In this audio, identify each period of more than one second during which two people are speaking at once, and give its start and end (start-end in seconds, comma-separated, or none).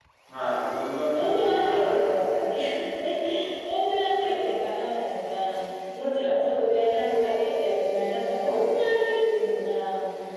1.1-2.4